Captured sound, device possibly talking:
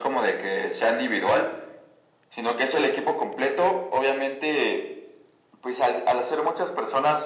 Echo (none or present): present